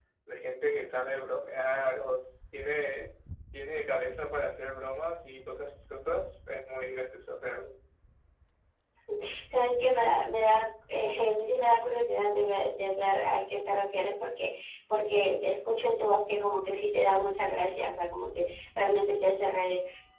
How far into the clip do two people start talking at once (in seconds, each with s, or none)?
none